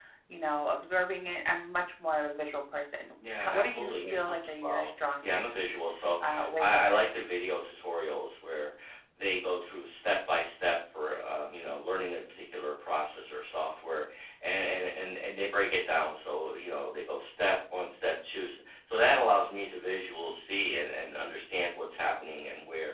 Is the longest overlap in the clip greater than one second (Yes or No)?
Yes